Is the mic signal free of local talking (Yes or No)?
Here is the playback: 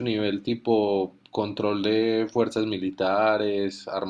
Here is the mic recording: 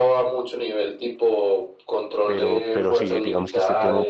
No